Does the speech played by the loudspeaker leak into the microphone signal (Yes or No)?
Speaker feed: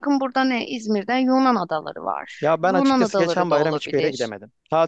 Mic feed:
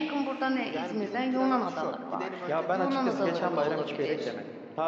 Yes